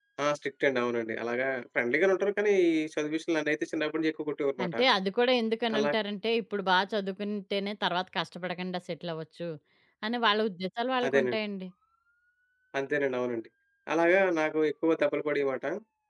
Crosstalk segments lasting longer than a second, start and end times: none

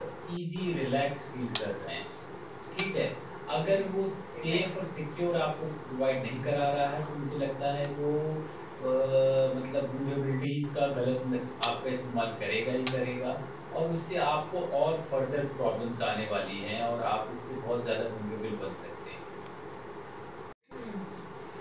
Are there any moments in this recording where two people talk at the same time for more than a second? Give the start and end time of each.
3.6-4.9

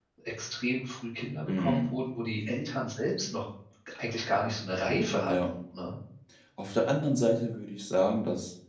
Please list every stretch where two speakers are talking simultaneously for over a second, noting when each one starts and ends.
none

